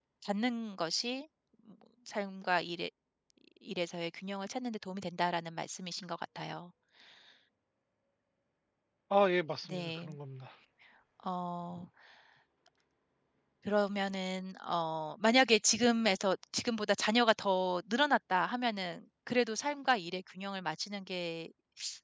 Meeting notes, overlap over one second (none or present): none